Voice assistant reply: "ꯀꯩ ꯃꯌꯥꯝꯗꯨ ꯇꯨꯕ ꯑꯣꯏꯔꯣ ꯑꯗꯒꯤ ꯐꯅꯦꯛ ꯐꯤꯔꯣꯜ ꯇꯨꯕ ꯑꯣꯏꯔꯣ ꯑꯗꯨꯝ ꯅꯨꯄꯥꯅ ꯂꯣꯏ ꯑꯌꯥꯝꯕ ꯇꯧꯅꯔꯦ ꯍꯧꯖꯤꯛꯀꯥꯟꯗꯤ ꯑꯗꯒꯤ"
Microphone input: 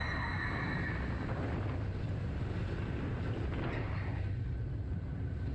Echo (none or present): none